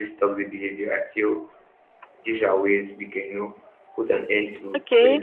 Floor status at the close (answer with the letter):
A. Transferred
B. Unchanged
A